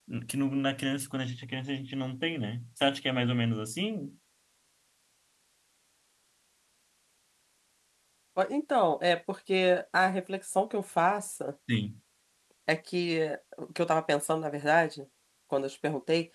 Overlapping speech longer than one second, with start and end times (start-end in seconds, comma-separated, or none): none